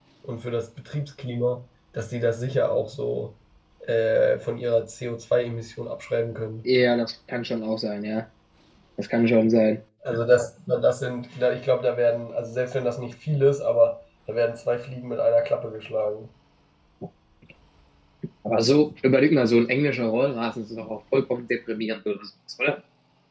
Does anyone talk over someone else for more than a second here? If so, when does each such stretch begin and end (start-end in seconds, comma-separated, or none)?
none